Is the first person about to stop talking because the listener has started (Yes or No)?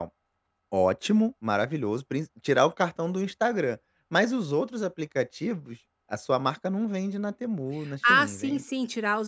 Yes